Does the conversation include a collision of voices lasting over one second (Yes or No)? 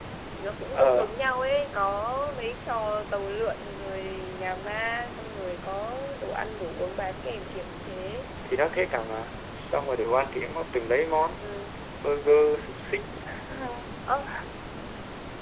No